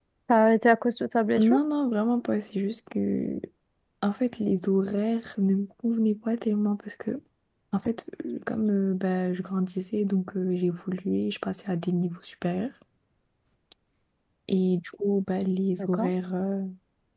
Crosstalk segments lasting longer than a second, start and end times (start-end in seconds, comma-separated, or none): none